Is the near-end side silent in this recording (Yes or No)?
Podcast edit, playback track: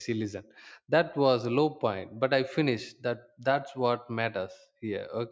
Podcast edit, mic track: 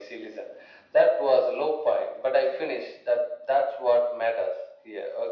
Yes